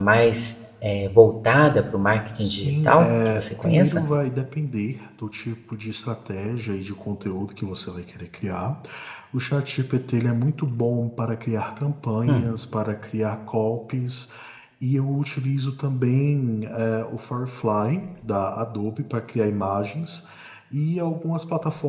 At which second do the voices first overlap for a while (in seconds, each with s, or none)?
2.4 s